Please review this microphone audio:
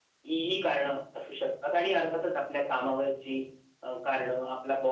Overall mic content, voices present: echo only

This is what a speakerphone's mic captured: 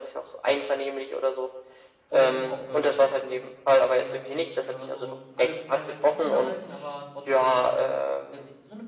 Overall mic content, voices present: both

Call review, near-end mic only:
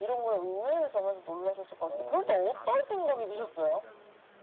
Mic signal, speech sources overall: both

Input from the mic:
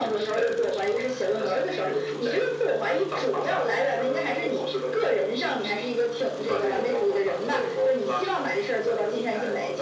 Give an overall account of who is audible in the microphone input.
echo only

